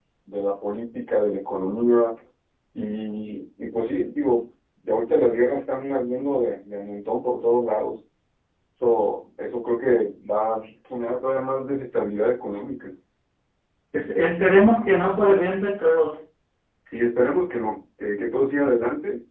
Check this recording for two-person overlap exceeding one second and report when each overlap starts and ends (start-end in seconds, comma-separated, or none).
none